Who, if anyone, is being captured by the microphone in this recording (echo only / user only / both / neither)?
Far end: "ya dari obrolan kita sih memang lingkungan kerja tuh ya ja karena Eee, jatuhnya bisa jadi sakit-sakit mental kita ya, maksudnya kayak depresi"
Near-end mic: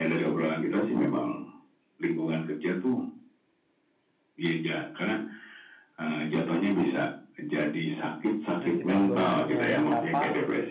both